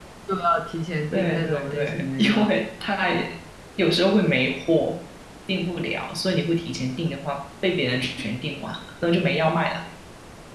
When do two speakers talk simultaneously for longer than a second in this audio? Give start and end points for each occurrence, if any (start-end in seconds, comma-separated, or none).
1.1-2.5